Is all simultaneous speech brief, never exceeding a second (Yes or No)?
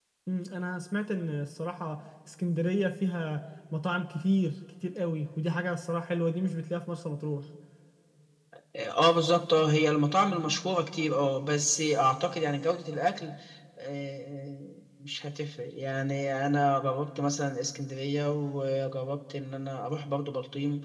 Yes